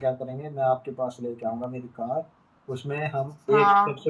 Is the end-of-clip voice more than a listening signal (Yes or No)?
No